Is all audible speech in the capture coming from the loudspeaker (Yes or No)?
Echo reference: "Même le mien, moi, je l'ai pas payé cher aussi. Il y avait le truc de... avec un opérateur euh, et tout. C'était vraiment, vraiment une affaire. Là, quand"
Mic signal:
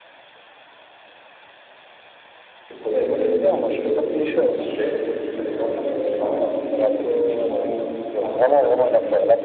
No